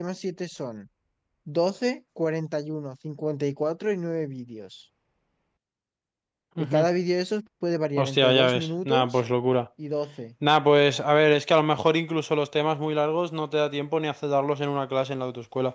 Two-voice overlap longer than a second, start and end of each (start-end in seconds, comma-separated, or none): 8.0-9.2